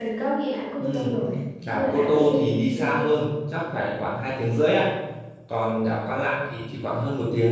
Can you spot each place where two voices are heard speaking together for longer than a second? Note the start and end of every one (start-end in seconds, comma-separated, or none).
1.7-3.1